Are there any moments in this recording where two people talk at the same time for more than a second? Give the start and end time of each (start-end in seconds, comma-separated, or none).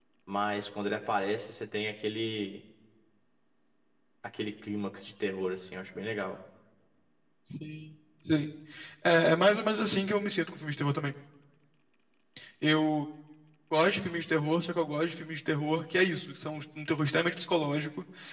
none